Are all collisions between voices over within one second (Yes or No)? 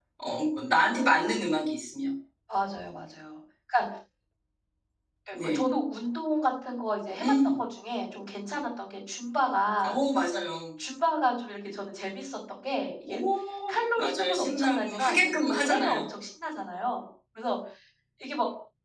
No